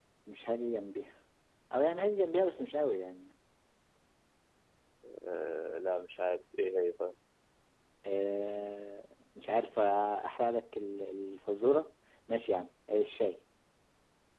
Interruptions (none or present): none